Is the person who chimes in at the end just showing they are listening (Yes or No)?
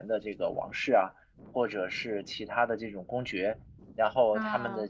Yes